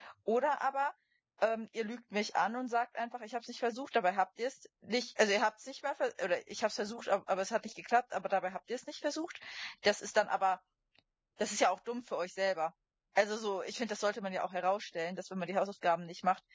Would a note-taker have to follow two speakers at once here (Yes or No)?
No